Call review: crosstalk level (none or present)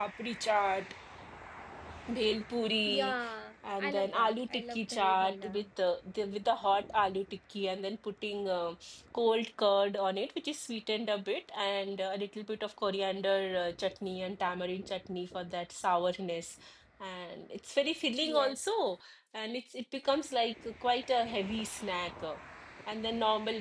present